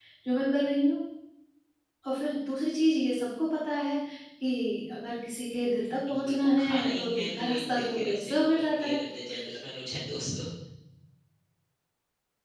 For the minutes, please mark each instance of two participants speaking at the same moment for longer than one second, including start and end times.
6.1-9.0

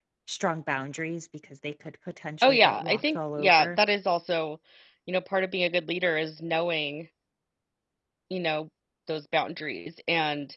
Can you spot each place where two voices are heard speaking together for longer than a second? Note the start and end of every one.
2.4-3.8

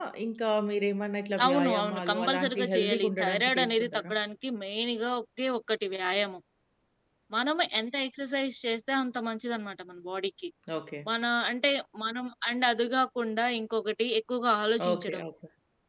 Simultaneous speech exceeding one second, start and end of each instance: 1.4-4.1

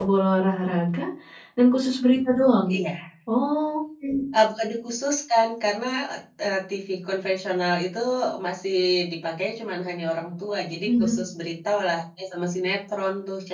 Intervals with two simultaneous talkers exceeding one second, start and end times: none

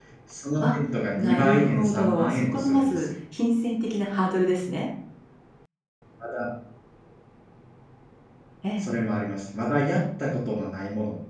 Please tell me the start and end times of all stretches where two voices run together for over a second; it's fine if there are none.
1.2-3.1

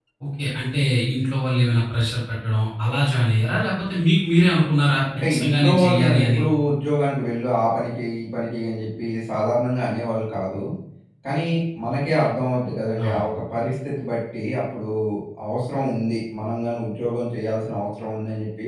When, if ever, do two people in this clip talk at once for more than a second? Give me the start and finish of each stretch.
5.2-6.4

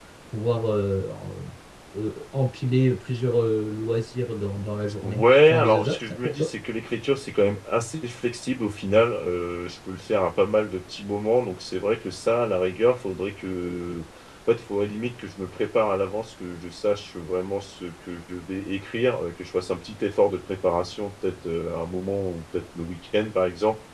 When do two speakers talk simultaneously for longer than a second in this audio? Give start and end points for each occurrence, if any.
5.0-6.5

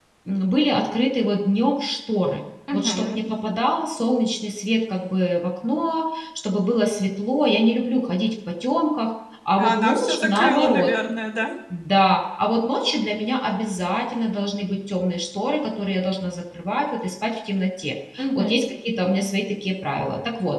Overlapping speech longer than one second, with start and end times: 9.6-10.9

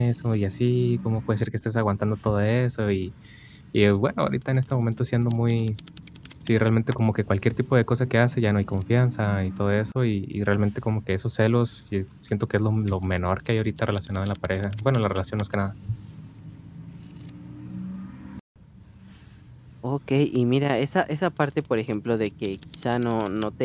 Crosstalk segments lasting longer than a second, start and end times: none

